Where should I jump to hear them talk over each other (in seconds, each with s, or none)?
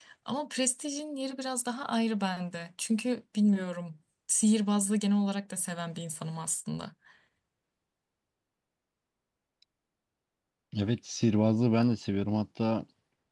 none